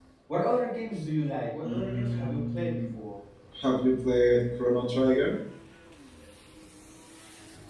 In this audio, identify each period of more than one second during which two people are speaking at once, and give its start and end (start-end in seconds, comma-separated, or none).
1.6-2.8